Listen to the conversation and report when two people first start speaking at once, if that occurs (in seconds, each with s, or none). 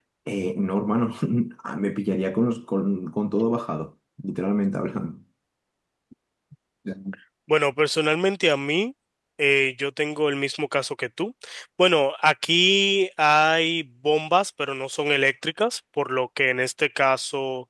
none